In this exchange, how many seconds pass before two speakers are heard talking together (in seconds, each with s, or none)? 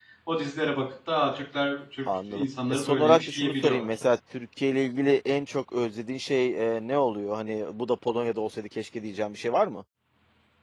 2.1 s